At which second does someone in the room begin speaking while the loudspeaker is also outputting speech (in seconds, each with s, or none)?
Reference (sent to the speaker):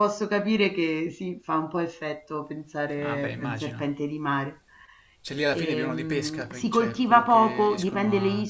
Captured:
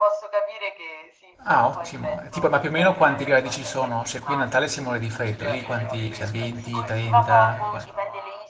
1.5 s